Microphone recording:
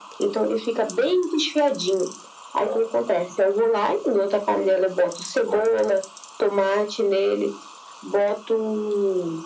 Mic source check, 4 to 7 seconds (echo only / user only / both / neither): echo only